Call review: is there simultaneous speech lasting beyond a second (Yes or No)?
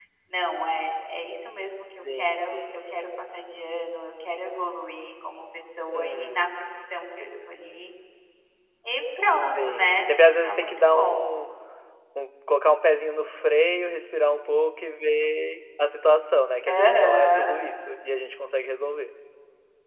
Yes